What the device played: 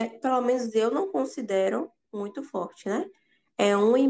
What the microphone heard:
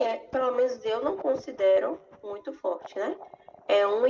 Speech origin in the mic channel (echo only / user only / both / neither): echo only